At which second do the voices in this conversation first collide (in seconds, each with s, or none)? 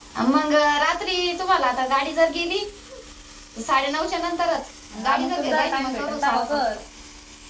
5.0 s